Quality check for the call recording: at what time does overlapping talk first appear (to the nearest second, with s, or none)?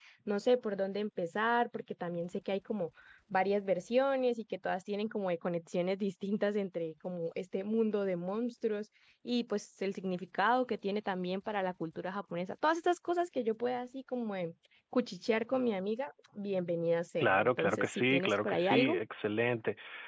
17 s